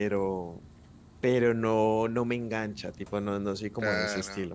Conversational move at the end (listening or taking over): taking over